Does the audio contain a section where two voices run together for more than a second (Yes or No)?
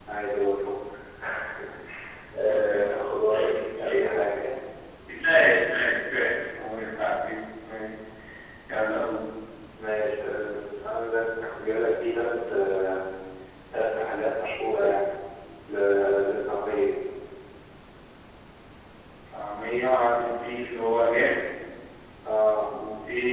Yes